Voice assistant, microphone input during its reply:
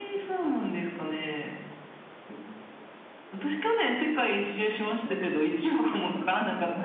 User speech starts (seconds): none

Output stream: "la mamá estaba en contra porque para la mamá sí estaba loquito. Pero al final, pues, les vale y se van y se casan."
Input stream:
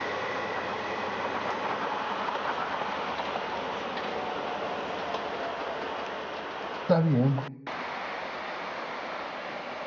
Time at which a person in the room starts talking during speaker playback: 6.8 s

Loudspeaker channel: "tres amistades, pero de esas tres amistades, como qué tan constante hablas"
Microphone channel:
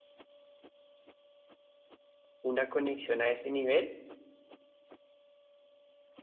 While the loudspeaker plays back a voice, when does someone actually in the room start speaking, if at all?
2.4 s

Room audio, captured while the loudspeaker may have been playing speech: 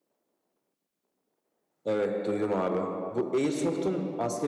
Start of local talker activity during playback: 1.8 s

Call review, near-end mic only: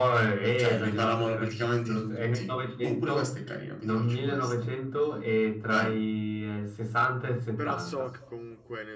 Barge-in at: 7.6 s

